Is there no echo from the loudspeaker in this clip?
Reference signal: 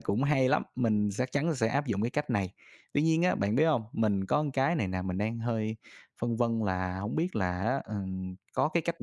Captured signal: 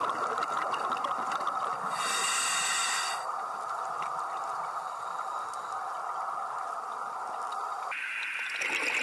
Yes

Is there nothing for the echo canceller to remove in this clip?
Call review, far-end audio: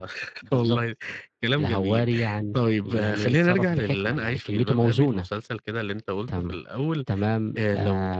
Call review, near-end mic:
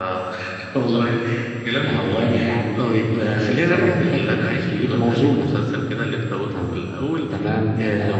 No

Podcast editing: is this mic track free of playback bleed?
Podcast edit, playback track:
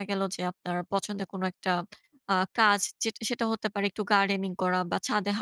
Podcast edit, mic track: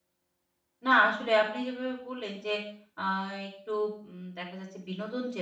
Yes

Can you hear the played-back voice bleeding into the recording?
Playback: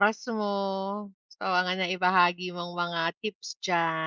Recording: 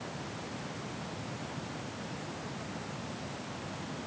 No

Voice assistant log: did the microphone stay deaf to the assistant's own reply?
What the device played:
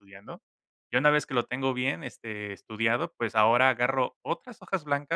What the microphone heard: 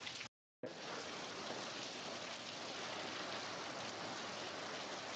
Yes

